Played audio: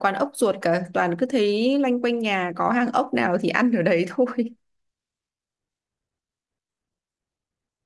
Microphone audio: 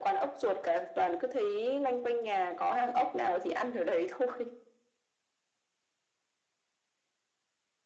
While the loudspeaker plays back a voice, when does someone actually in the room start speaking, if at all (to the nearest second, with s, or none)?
none